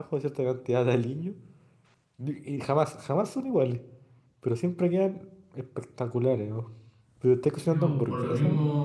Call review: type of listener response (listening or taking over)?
taking over